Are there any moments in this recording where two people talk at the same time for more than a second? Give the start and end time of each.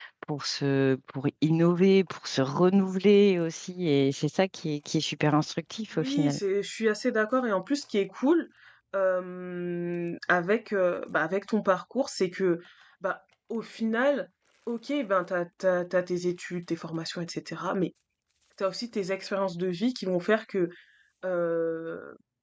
none

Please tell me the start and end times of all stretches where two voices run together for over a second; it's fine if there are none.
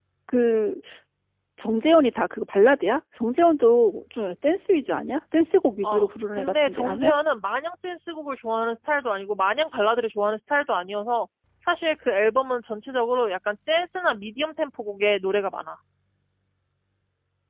5.8-7.1

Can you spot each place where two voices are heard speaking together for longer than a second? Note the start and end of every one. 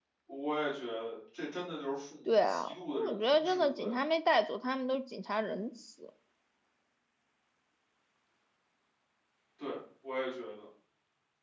2.3-3.9

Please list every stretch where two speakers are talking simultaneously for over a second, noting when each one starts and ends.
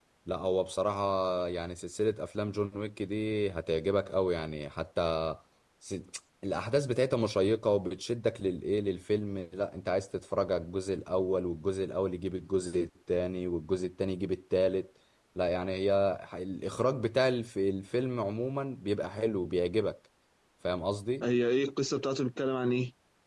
none

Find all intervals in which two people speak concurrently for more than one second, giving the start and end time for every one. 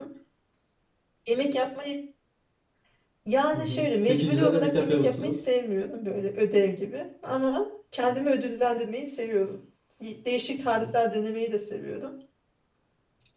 3.6-5.4

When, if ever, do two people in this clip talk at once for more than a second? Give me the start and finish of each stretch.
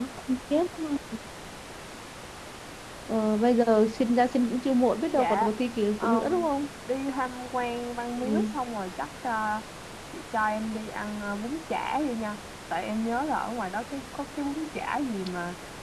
none

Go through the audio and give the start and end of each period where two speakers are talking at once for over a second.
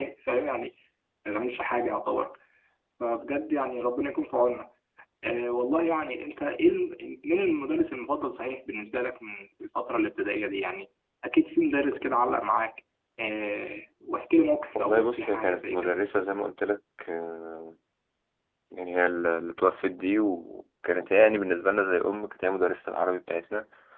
14.8-16.0

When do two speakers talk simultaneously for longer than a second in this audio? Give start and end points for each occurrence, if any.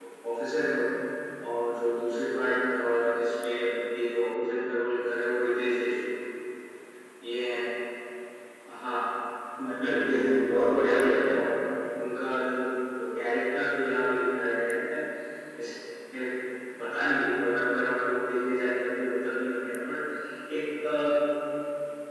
9.7-11.3

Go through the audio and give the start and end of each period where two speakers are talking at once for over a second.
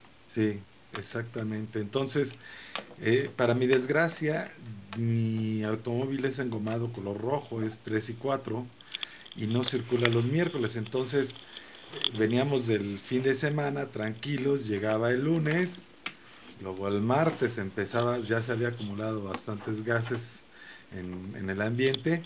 none

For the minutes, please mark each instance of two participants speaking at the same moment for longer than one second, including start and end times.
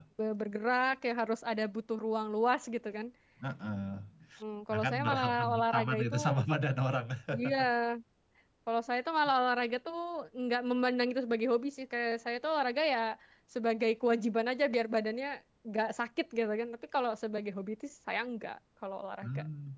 4.7-6.1

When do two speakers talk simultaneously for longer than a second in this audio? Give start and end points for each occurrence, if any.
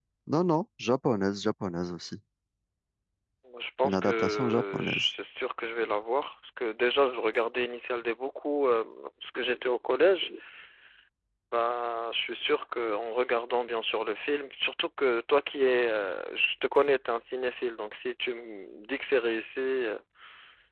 3.8-5.1

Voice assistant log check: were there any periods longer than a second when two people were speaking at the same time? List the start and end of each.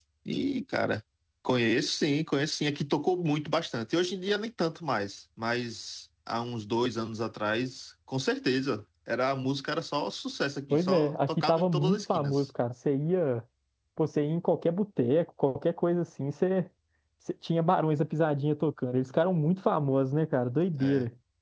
10.7-12.5

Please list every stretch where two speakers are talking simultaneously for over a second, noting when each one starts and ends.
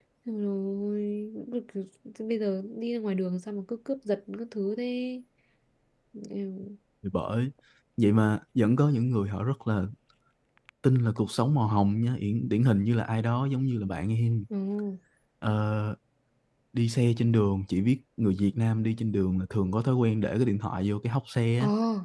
none

